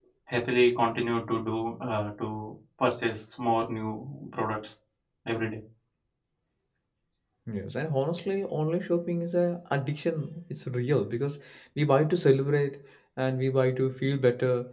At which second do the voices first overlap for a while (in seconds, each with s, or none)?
none